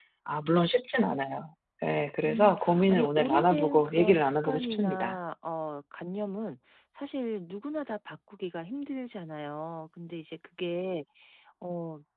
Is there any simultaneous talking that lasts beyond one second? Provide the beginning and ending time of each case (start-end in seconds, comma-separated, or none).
2.2-5.2